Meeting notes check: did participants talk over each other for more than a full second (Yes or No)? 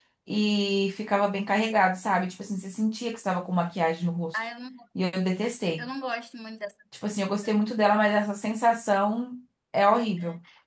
No